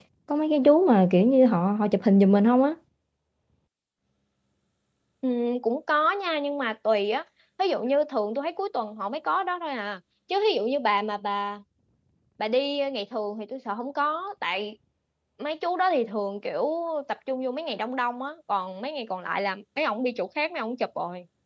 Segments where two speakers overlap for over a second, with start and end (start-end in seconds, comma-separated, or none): none